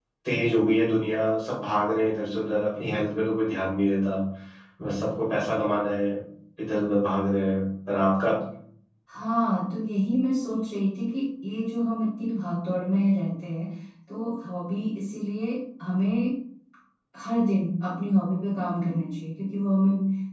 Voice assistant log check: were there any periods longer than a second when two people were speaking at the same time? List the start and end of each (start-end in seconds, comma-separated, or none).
none